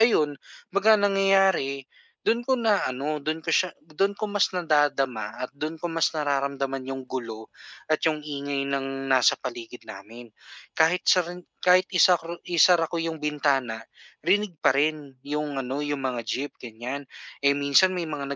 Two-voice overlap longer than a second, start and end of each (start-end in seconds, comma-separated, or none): none